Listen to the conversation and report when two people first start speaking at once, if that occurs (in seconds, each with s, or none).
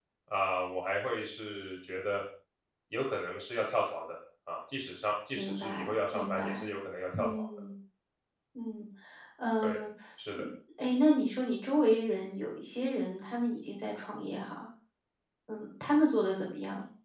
5.4 s